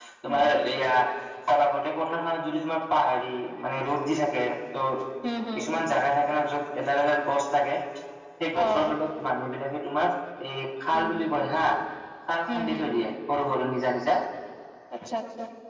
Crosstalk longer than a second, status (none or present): none